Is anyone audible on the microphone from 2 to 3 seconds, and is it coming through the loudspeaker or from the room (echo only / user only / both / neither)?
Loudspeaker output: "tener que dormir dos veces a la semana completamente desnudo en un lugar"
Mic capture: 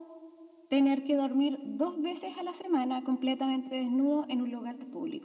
echo only